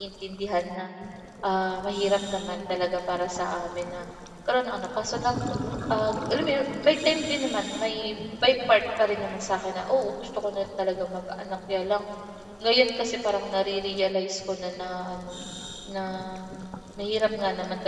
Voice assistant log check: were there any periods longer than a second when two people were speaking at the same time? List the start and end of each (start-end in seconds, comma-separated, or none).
none